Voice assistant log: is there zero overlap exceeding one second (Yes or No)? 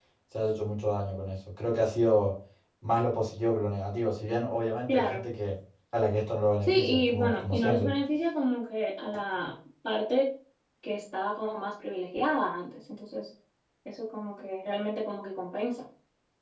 No